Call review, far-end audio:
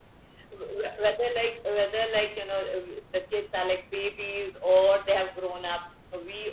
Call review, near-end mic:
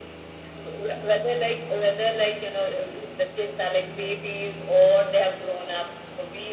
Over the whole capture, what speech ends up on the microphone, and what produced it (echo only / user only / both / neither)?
echo only